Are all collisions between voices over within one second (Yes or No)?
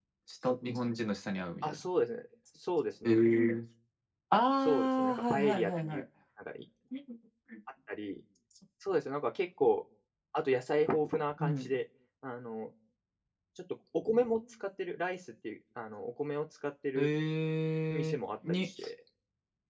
No